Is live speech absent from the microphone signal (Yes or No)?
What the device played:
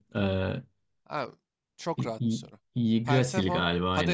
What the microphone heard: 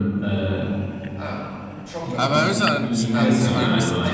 No